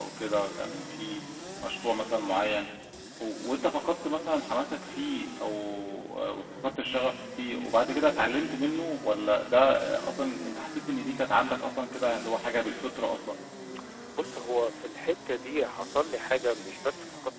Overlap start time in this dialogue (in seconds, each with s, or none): none